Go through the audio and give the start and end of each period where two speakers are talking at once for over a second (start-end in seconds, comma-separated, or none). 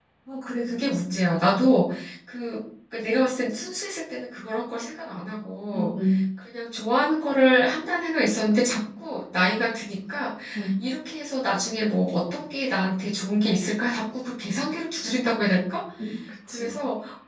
none